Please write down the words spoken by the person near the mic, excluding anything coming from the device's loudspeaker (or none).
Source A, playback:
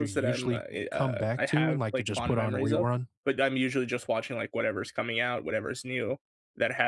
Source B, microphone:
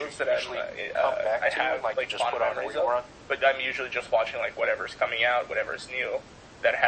none